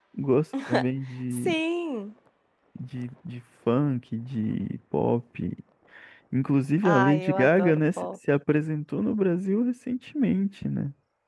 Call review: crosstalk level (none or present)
present